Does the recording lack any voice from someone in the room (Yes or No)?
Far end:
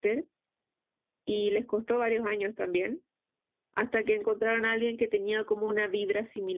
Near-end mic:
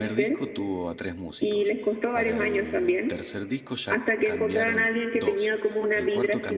No